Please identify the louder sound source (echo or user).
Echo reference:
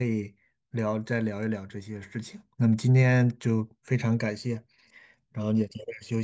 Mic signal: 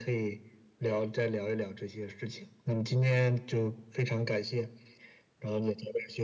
echo